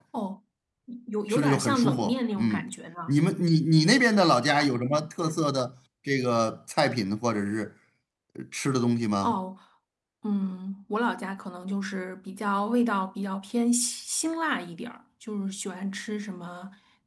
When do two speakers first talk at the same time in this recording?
1.3 s

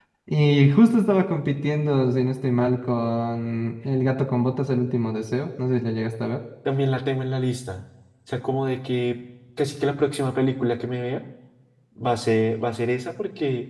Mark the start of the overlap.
none

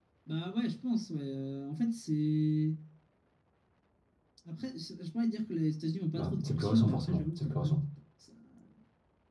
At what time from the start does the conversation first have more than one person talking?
6.2 s

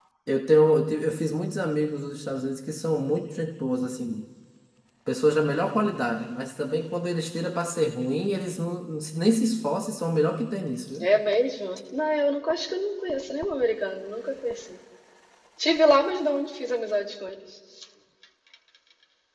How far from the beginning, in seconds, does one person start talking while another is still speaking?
none

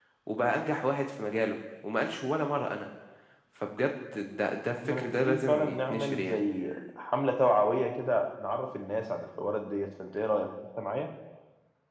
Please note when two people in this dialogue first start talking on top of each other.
4.7 s

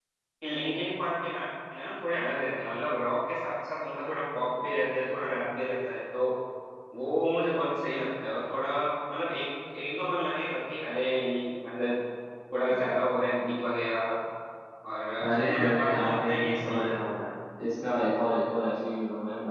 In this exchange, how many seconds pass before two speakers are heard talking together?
15.2 s

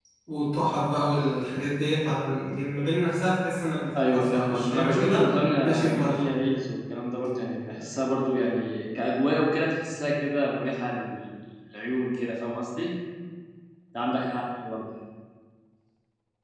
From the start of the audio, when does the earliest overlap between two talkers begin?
3.9 s

